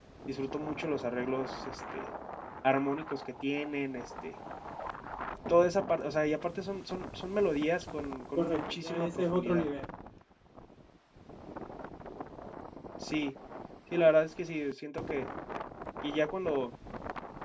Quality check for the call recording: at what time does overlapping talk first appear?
8.4 s

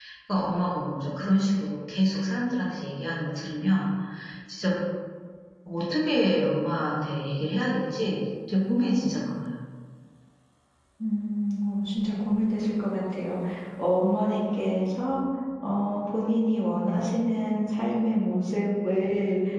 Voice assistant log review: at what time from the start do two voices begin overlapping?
none

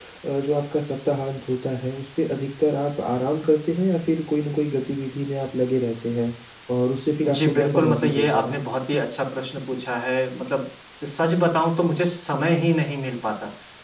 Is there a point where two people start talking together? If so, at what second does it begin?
7.2 s

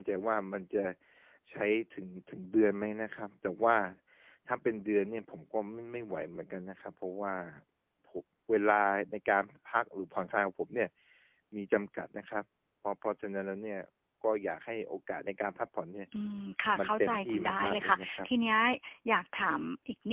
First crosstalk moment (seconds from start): 16.8 s

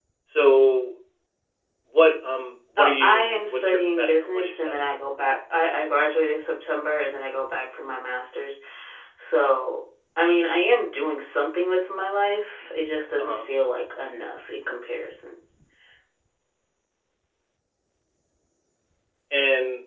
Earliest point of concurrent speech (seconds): 2.8 s

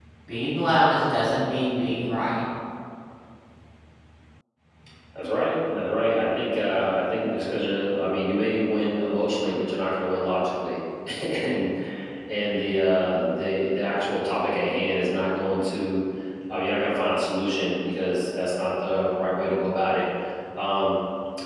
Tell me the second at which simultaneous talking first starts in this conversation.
none

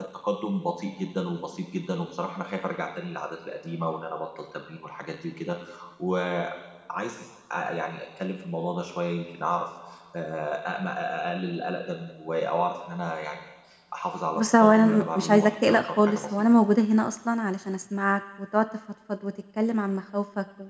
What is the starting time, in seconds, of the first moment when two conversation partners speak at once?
14.3 s

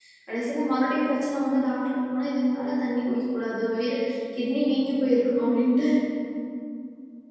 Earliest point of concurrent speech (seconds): none

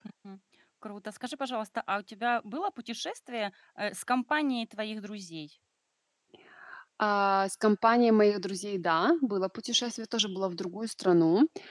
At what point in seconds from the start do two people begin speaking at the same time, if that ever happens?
none

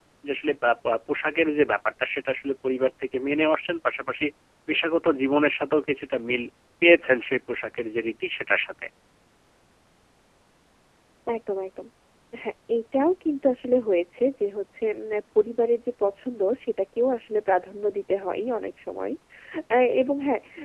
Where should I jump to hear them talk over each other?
none

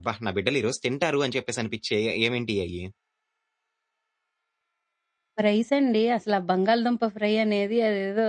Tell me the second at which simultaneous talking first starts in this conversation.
none

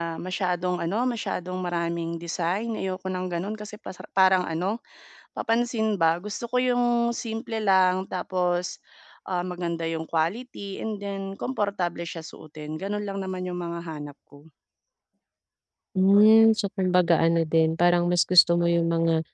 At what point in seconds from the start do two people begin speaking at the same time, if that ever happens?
none

